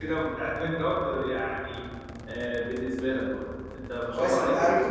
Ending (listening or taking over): taking over